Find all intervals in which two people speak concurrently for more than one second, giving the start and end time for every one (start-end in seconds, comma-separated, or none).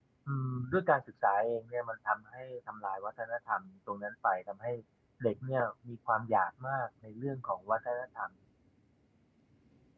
none